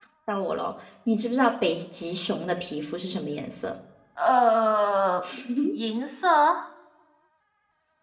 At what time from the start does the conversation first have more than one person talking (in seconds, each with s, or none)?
none